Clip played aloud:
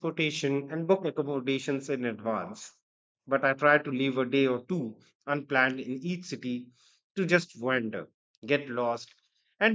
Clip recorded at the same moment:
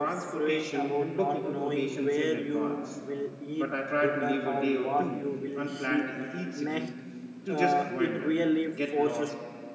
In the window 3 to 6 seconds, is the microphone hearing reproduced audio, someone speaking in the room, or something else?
both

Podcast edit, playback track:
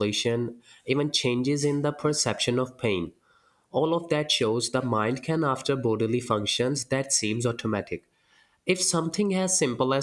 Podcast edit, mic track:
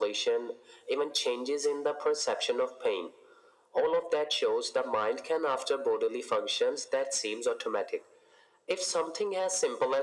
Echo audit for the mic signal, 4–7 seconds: echo only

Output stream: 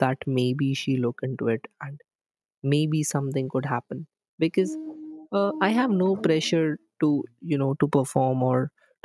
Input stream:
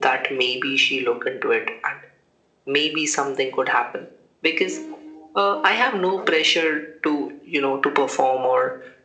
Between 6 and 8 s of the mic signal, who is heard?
echo only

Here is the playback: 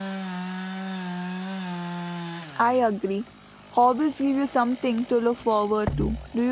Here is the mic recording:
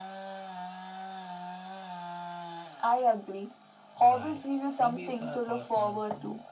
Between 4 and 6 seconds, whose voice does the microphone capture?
both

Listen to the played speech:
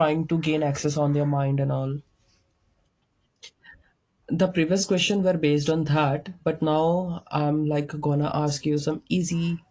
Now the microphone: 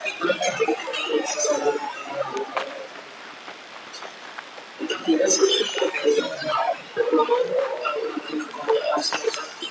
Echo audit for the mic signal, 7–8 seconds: echo only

